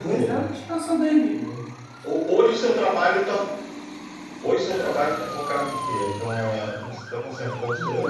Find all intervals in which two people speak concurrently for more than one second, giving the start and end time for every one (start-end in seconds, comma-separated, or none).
none